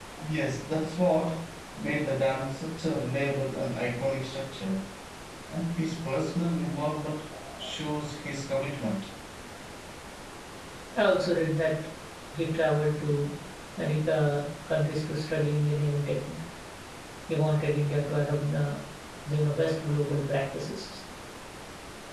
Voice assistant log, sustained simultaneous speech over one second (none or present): none